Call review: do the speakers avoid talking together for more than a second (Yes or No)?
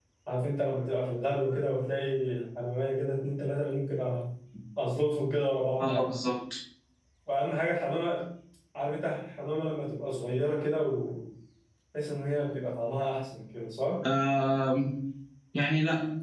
Yes